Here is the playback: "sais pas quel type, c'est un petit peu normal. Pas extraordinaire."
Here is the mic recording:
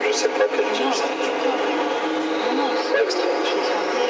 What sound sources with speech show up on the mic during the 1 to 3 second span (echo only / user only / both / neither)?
both